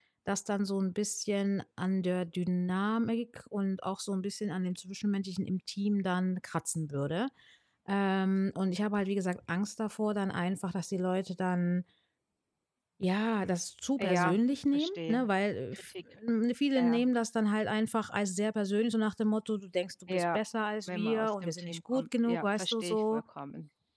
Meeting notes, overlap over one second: present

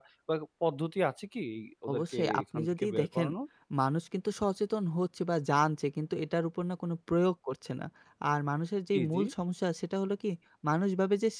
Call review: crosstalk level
present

